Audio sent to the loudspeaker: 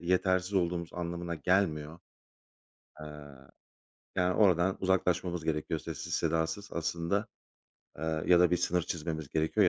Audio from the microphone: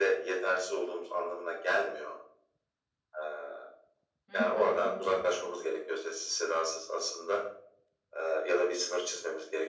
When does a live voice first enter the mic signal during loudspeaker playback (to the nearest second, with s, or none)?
4 s